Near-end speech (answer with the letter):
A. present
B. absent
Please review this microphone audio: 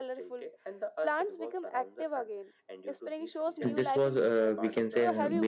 A